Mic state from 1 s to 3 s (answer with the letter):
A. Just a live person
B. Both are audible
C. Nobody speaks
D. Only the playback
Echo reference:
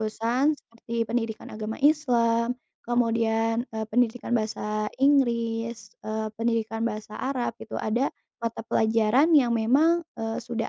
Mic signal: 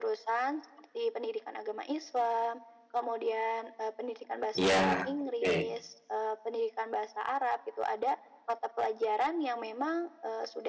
D